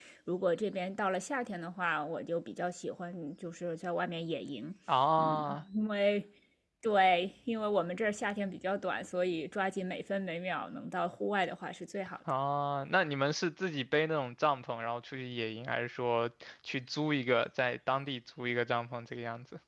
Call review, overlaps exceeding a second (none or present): none